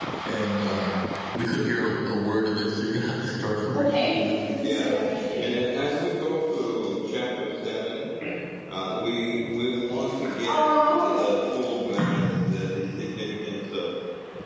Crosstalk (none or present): present